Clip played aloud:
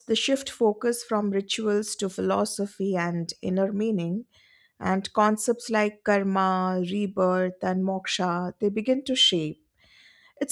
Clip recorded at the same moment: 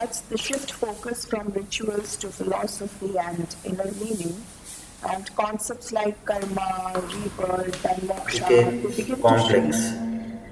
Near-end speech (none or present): present